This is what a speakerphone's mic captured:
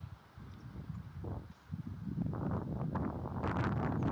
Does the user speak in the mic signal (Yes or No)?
No